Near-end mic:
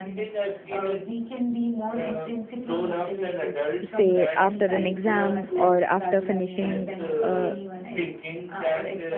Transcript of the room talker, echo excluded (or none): say after an exam or after finishing uh,